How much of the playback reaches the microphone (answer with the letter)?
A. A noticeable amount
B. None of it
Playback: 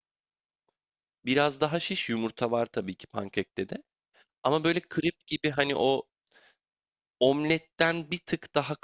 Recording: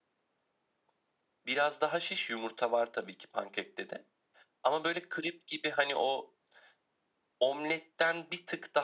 A